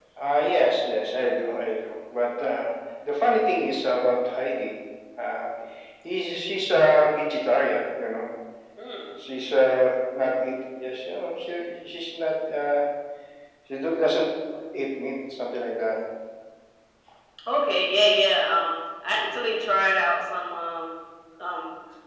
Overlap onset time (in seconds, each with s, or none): none